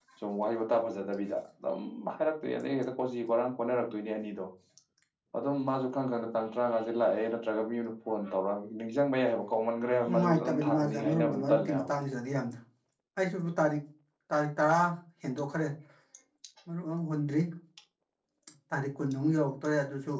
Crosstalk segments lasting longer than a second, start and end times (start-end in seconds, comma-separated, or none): 10.1-11.9